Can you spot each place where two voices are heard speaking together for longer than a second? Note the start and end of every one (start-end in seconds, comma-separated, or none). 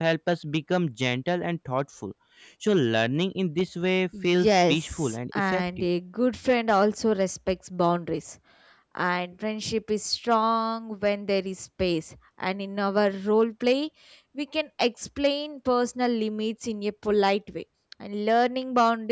4.1-5.8